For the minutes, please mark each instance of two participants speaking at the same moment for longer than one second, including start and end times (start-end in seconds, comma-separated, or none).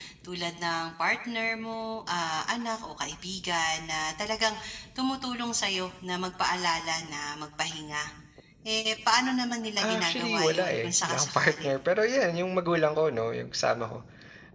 9.8-11.7